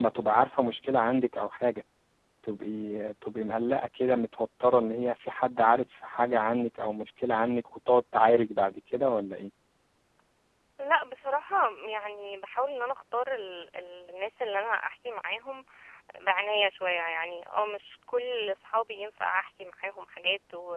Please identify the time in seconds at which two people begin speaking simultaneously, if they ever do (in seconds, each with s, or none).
none